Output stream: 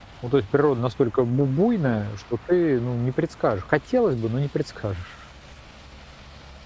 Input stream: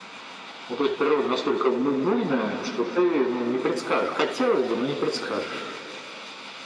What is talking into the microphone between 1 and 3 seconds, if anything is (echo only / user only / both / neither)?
echo only